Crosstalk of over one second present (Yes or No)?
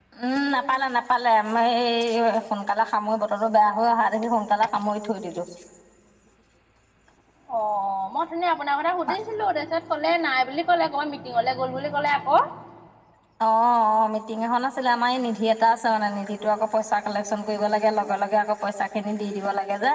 No